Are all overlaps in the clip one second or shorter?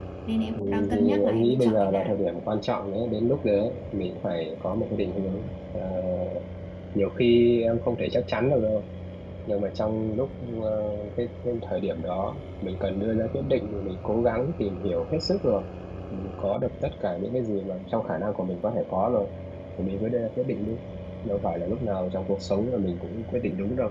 No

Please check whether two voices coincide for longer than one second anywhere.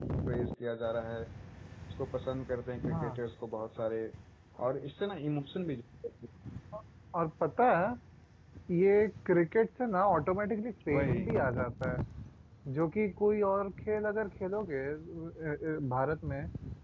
No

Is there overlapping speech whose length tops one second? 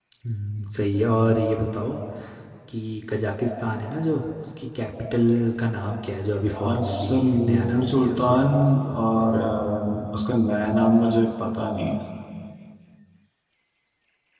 Yes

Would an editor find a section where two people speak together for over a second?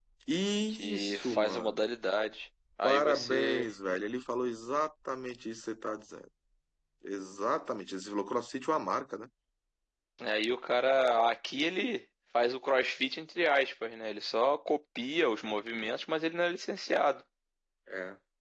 Yes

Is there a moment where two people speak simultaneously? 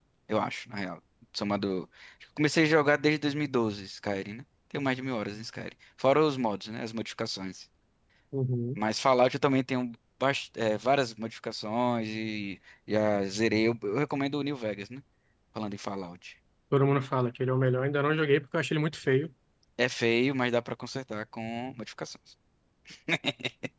No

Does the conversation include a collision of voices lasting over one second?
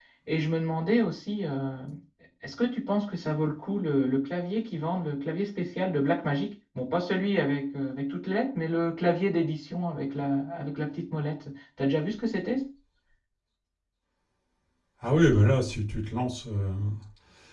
No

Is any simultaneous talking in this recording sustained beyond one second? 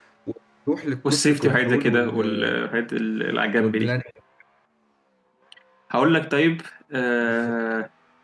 Yes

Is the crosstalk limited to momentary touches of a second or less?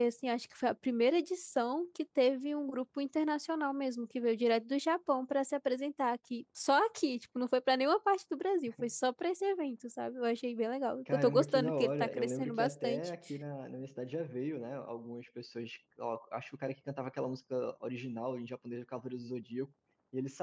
No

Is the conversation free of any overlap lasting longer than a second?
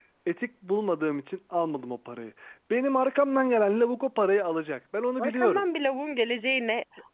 Yes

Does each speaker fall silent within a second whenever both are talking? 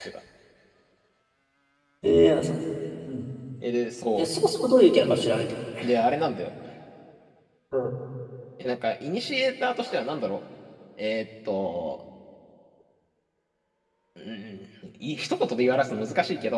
Yes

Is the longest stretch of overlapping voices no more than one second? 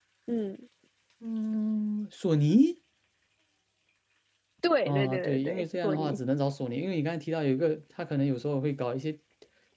No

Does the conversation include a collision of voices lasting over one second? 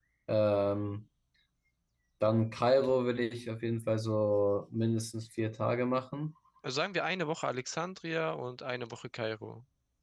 No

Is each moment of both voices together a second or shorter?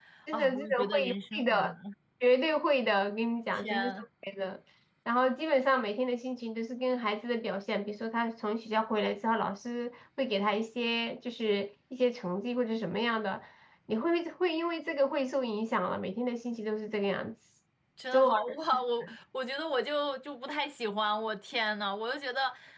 No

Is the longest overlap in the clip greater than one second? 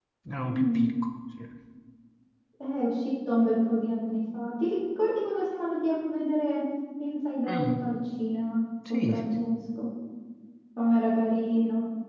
No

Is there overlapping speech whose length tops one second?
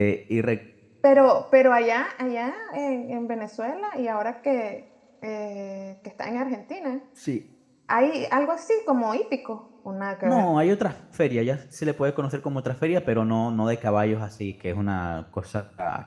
No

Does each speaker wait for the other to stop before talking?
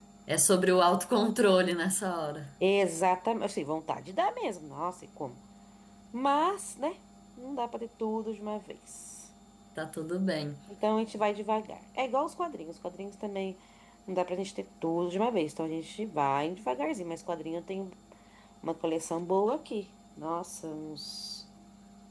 Yes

